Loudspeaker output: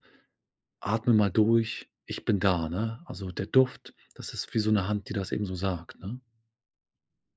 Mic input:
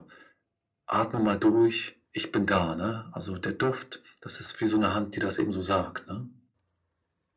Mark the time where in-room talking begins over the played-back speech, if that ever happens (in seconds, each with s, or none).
none